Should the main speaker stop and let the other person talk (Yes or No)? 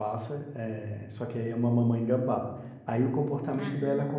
No